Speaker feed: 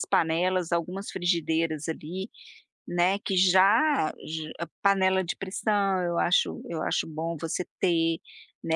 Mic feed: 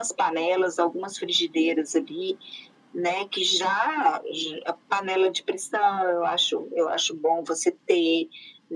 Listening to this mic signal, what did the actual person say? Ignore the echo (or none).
none